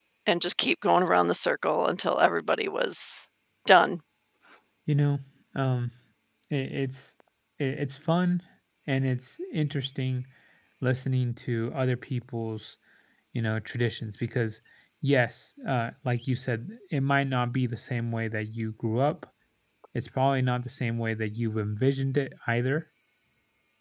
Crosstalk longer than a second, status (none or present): none